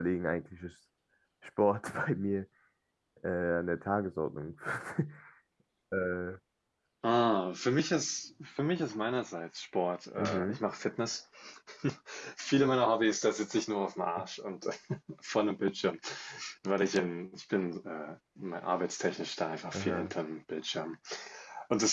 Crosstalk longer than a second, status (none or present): none